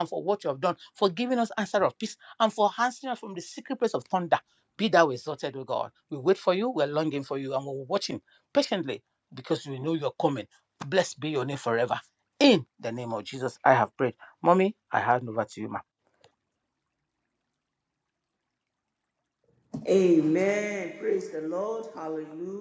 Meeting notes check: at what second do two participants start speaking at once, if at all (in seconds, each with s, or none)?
none